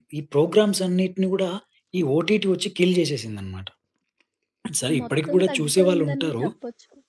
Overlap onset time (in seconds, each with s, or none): 5.0 s